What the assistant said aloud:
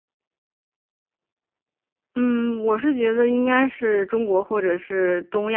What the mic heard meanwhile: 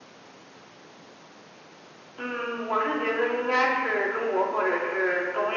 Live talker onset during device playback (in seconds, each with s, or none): none